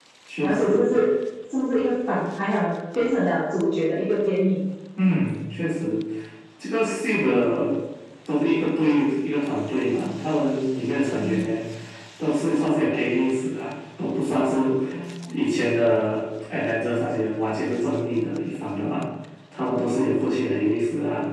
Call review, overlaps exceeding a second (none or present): none